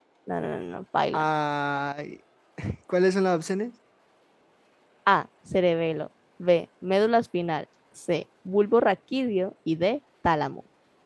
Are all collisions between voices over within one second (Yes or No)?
Yes